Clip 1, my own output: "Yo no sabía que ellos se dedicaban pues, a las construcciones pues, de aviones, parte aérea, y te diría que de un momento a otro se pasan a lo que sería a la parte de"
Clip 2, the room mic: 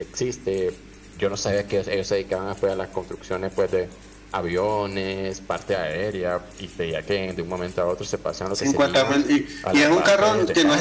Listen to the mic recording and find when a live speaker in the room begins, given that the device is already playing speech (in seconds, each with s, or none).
8.5 s